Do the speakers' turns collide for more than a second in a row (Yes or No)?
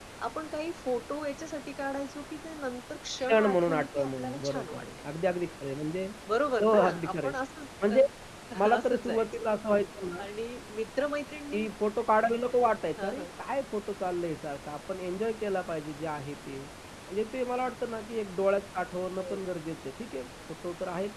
Yes